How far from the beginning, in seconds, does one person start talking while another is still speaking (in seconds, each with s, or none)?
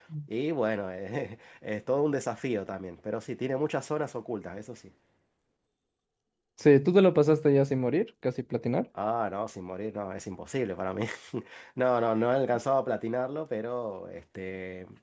none